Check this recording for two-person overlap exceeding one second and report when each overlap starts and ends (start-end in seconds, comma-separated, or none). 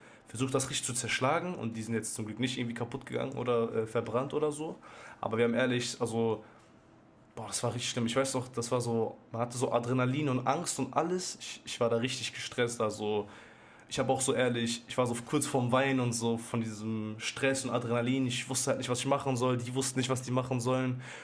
none